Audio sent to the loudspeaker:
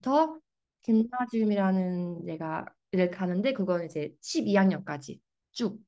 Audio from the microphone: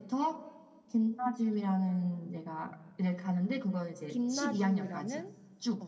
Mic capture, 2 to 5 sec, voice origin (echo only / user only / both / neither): both